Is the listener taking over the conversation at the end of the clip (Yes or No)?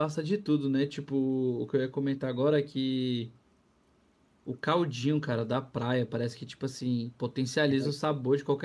No